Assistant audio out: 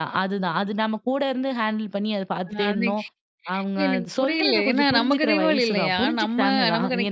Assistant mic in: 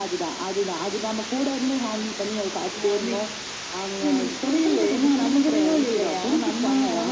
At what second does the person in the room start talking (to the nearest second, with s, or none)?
none